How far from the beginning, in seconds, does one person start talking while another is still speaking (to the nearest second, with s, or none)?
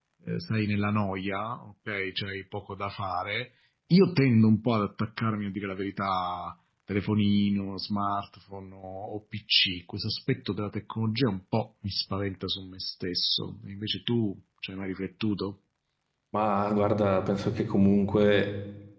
none